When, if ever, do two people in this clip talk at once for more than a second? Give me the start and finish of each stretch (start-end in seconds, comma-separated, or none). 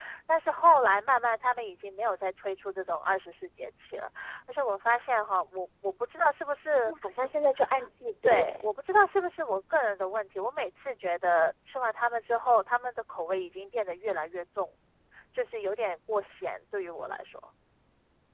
none